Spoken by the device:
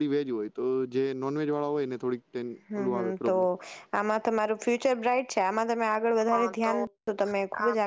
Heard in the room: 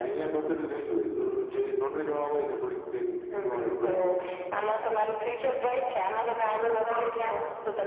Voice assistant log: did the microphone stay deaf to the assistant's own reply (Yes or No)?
No